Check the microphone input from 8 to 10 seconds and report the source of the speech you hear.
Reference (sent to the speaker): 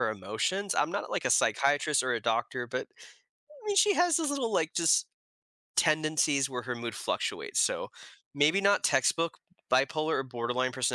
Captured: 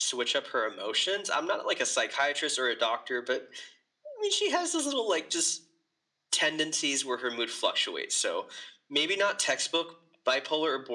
echo only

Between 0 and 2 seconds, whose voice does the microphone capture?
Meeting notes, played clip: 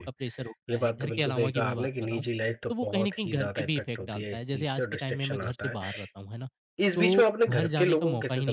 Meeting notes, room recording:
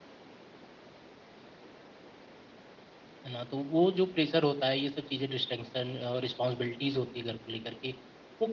neither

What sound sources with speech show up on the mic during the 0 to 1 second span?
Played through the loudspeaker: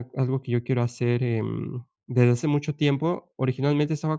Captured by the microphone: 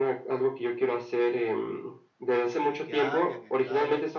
echo only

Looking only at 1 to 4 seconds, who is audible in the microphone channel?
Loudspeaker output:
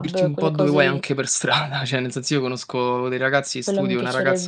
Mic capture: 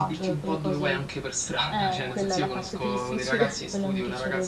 both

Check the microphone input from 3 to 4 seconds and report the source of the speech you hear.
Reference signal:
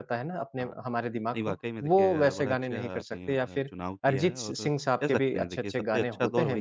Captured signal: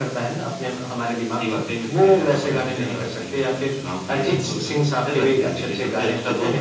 echo only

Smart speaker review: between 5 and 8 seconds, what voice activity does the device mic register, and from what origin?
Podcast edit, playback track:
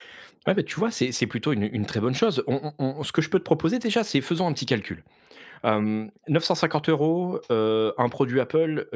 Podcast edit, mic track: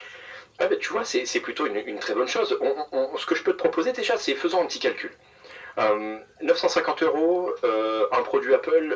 echo only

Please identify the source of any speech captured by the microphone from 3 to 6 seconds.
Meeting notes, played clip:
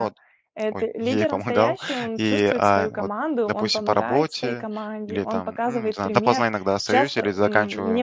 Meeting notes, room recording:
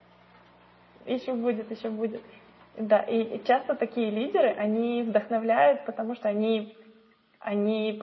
user only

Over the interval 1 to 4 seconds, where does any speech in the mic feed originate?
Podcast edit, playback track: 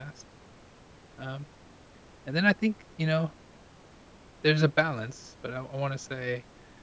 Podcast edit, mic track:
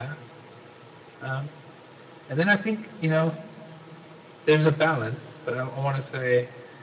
echo only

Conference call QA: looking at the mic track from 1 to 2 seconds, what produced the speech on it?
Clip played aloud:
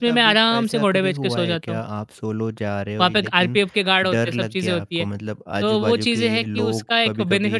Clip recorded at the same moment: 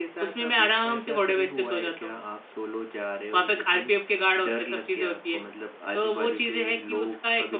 echo only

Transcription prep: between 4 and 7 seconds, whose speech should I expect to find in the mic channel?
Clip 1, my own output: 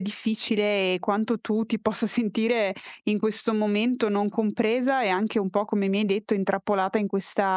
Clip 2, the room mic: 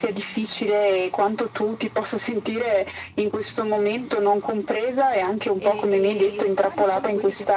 both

